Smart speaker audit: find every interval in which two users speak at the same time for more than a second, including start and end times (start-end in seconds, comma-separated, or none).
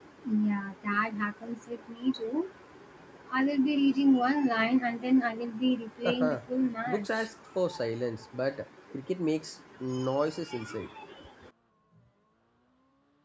none